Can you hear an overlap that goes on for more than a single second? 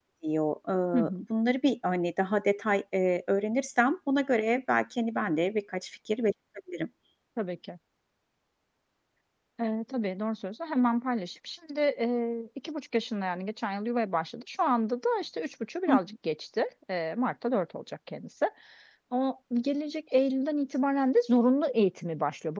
No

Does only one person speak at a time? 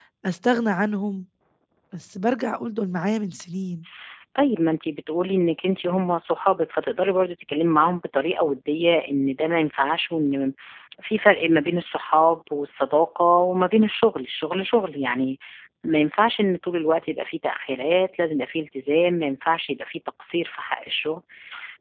Yes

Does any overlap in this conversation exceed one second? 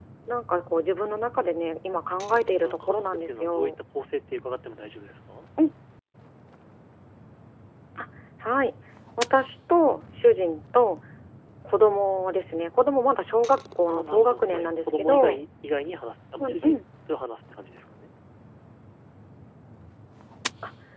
Yes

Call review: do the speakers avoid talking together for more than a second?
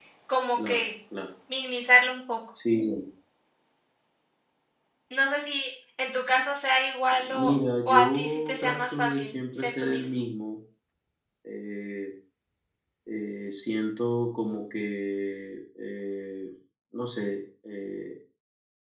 No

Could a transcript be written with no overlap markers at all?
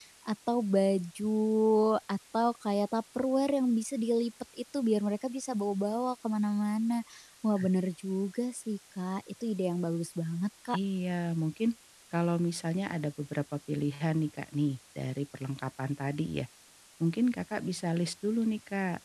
Yes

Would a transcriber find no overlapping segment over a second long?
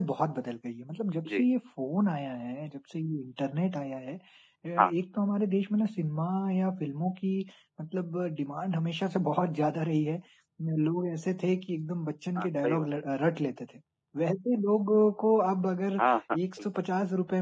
Yes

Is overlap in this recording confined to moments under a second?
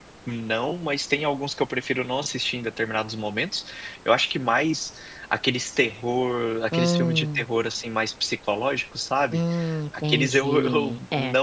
No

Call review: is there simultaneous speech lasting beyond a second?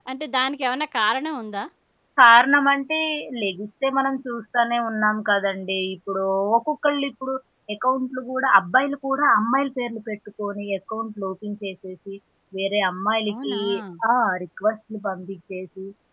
No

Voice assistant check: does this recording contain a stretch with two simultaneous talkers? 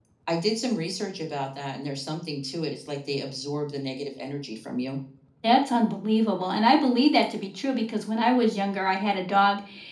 No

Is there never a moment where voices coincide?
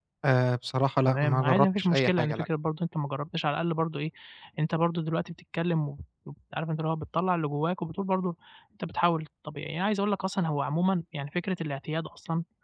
No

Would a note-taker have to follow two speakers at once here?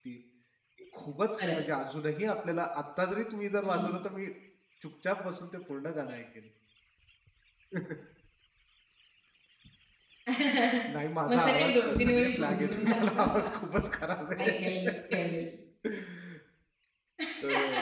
Yes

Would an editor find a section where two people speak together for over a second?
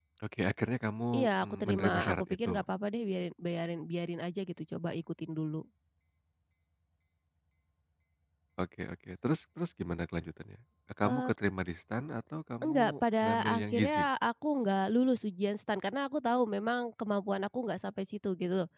Yes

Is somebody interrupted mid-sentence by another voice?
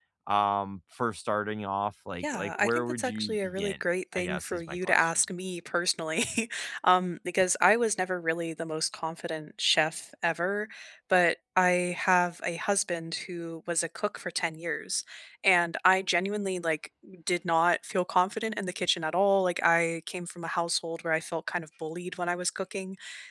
Yes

